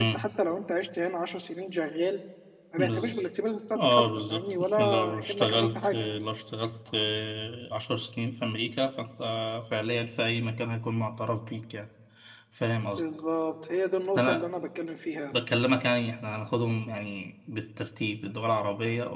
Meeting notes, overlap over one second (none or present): present